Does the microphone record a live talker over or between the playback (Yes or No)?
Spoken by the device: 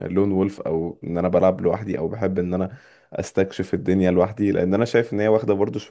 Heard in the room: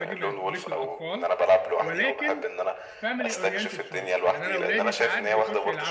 Yes